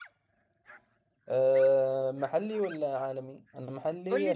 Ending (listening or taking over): taking over